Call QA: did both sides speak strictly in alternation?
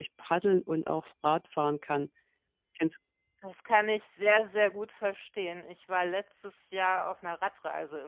Yes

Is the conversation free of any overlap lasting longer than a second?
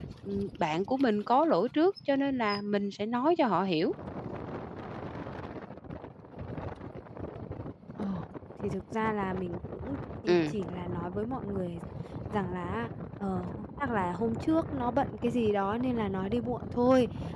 Yes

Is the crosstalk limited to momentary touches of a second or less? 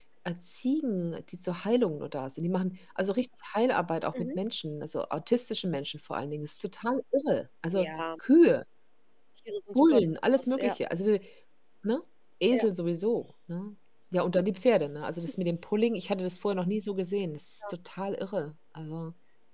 Yes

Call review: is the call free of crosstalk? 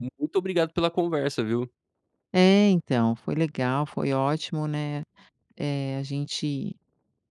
Yes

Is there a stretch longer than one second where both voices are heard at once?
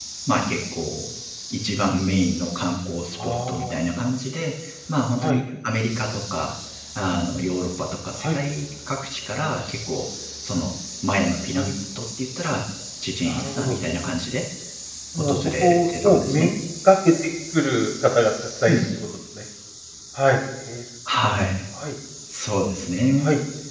Yes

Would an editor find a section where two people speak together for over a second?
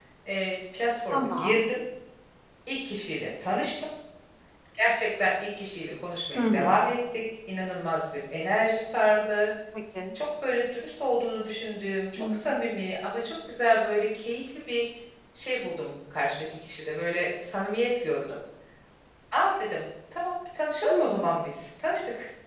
No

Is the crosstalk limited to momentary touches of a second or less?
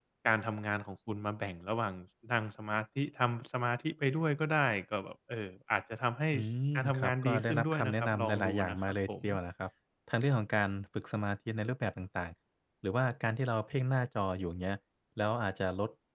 No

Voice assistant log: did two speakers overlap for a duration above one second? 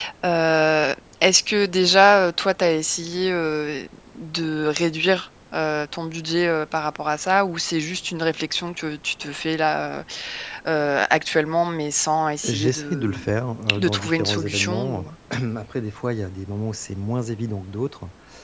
Yes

